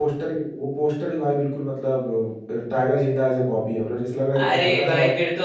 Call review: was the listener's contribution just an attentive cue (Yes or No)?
No